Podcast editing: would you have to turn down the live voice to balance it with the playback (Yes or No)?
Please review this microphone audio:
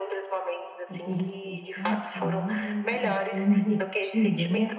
Yes